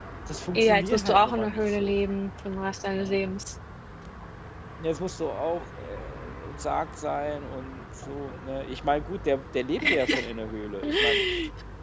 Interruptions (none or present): present